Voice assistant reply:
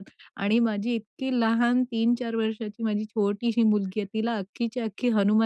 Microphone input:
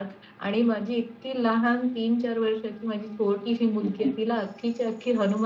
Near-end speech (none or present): present